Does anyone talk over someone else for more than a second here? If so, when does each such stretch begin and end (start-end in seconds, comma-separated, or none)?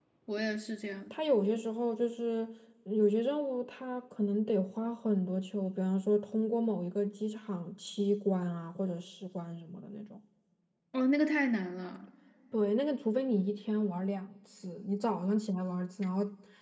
none